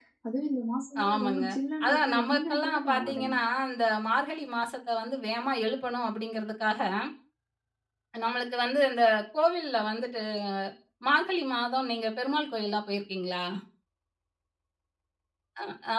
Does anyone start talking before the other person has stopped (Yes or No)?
Yes